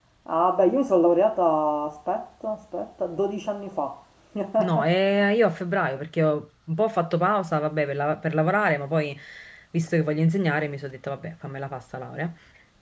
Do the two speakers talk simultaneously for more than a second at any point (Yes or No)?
No